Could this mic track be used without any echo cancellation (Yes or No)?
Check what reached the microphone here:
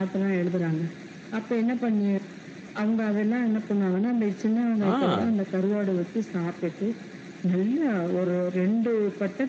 No